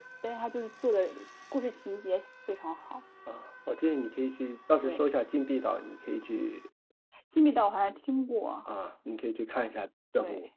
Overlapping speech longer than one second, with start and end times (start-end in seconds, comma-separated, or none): none